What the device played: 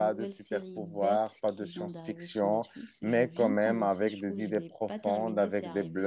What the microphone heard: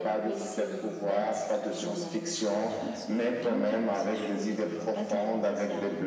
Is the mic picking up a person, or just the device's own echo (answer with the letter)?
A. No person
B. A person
A